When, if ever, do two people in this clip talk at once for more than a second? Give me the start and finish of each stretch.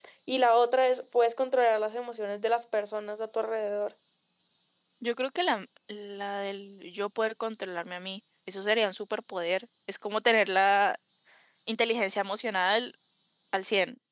none

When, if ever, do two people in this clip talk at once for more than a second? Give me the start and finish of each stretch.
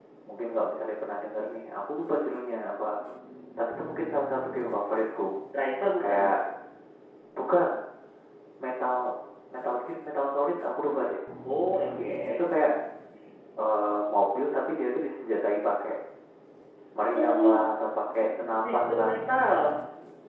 none

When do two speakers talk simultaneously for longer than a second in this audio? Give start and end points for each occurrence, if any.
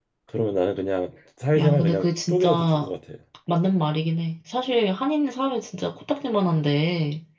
1.6-2.9

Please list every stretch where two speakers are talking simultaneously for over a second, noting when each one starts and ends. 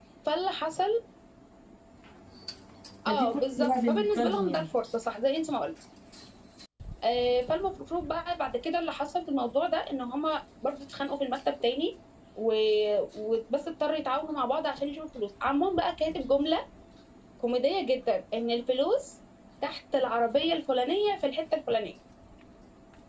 3.1-4.6

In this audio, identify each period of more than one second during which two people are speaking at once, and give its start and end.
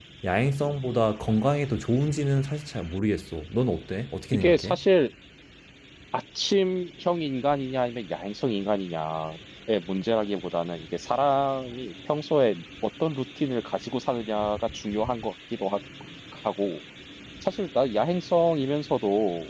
none

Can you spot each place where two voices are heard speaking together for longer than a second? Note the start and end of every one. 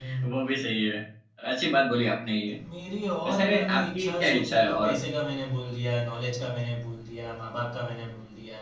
3.3-5.0

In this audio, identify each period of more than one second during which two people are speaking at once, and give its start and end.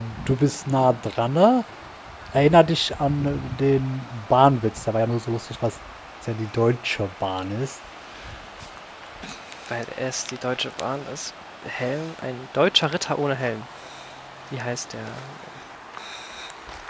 none

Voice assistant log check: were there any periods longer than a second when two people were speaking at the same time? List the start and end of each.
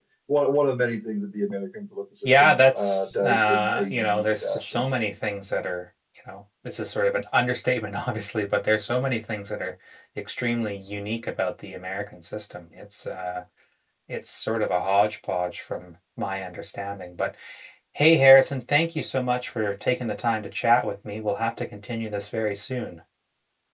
2.4-4.8

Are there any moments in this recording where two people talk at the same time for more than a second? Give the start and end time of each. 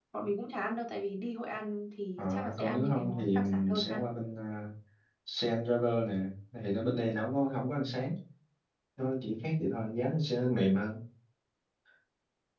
2.2-4.0

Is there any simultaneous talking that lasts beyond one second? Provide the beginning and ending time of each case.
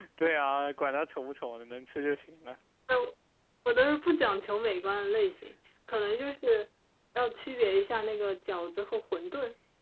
none

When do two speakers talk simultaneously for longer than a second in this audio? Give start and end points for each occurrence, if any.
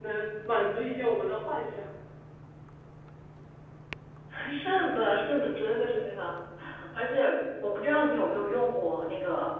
none

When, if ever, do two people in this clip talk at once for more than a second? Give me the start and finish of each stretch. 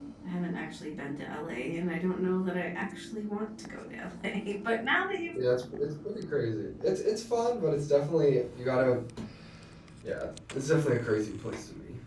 none

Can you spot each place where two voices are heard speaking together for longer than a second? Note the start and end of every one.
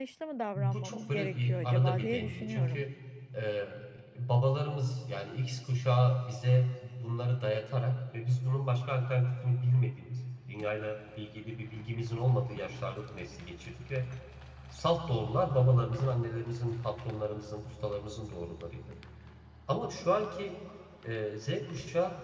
0.6-2.8

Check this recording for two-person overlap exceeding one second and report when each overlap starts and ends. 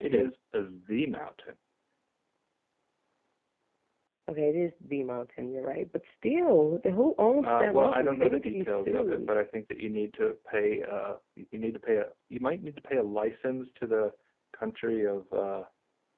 7.4-9.3

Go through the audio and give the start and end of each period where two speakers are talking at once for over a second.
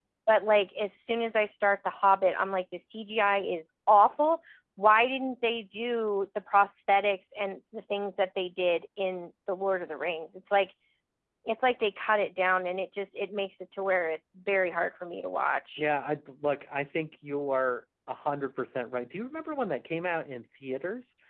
none

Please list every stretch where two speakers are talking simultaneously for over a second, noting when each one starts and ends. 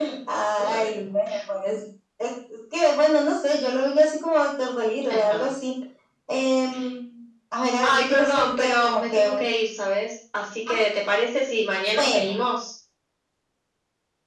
7.8-9.4

